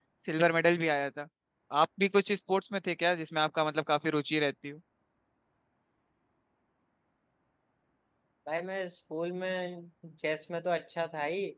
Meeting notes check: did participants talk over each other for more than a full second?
No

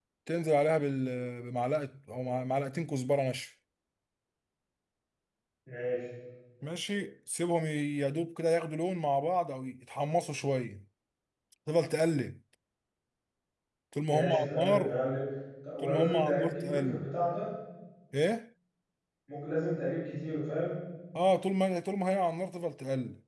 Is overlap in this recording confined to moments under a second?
No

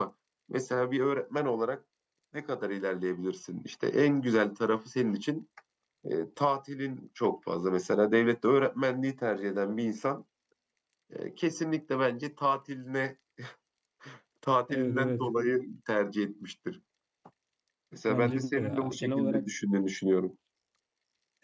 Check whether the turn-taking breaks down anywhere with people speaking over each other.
Yes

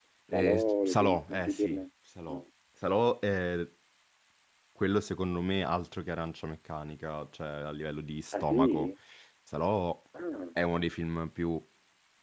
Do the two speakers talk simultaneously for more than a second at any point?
Yes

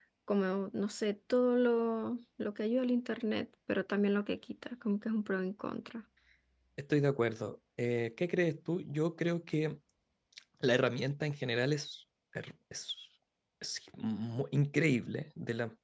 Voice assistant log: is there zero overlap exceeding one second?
Yes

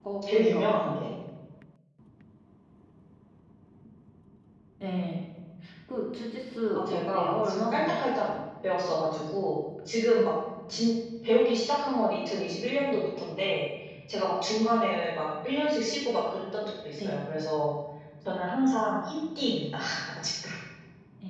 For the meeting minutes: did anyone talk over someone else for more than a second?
Yes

